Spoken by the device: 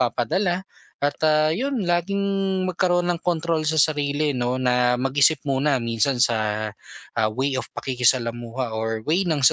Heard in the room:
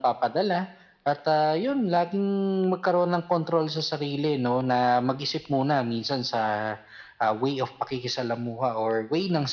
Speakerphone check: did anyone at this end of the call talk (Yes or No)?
No